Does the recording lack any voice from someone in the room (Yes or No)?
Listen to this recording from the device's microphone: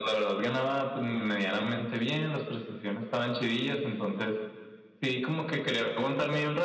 Yes